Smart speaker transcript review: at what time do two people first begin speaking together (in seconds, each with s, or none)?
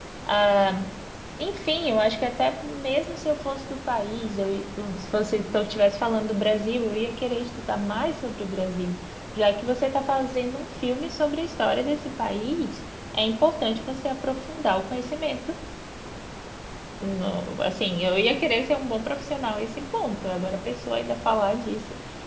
none